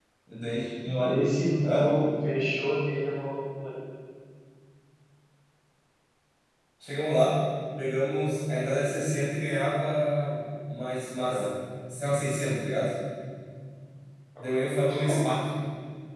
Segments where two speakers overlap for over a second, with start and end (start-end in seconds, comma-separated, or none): none